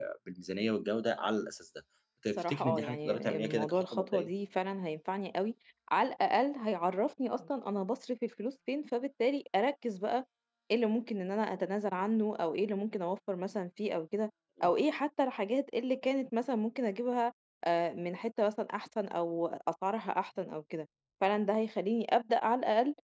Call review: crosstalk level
present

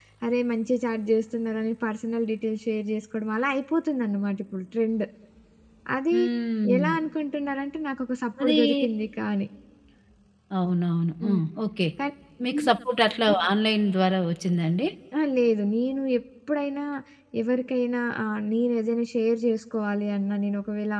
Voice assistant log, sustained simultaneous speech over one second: none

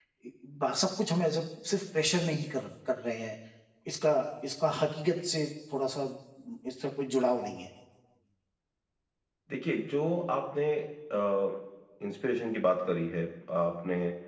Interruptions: none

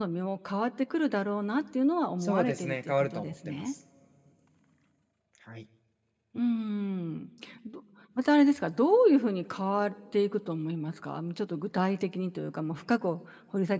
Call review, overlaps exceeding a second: present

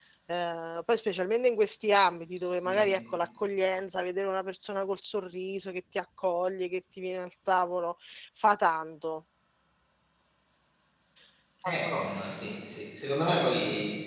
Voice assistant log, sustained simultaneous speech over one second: none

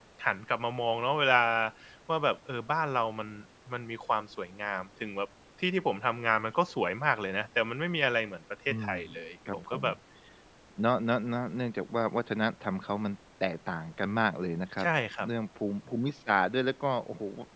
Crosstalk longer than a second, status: none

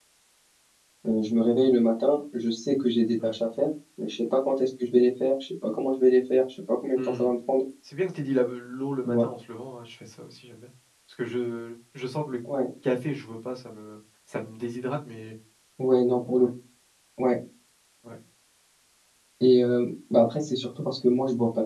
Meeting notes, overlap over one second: none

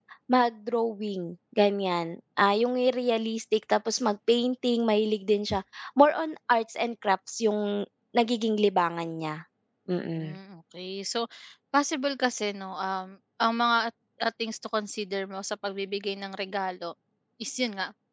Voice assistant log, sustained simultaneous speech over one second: none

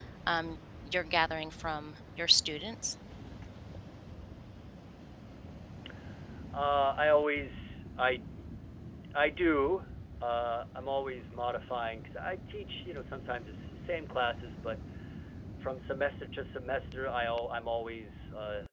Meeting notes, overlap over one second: none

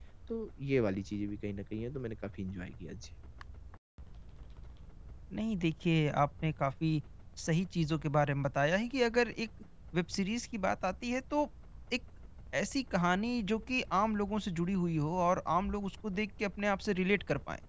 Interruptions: none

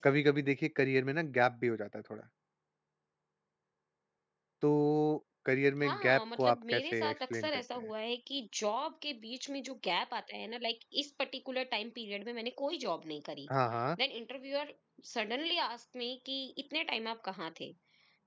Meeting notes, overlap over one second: present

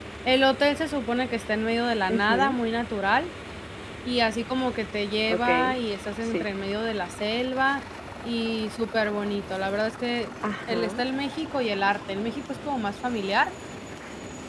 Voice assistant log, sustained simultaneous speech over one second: none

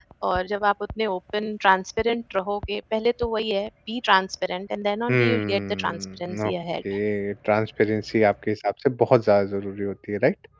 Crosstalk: present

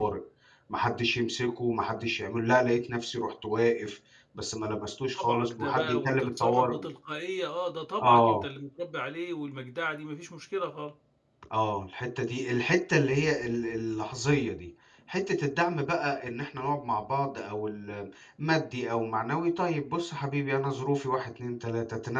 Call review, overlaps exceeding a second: present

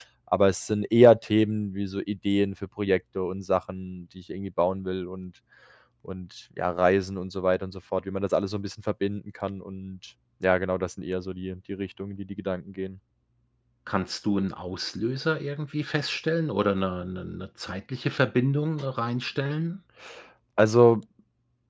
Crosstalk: none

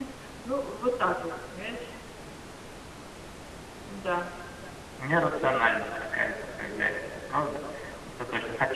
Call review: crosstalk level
none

